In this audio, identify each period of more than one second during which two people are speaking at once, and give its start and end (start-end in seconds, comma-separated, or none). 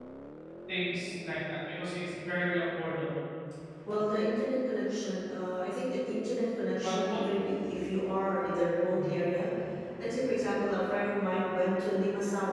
none